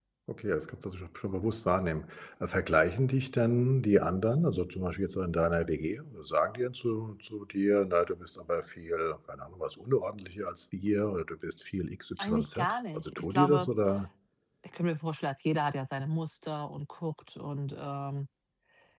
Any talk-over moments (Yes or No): Yes